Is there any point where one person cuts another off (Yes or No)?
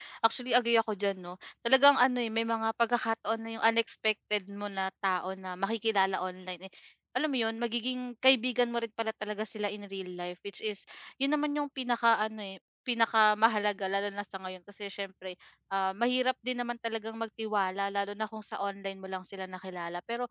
No